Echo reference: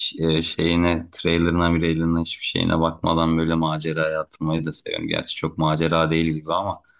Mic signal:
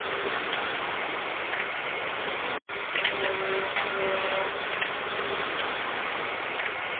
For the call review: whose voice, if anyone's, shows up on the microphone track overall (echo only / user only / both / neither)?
neither